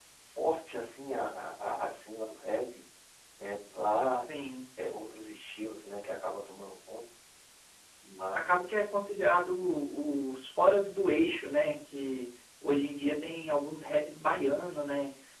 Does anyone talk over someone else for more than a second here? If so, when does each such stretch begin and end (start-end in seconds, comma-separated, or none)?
none